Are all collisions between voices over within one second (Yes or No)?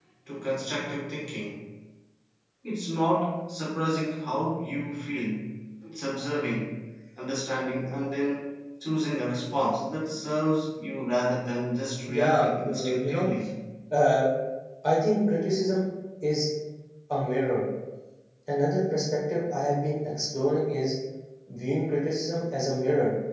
No